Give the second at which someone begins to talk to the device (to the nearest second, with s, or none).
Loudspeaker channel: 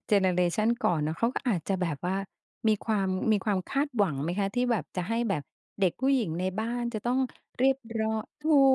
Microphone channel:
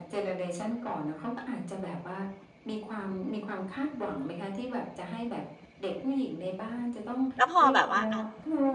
7 s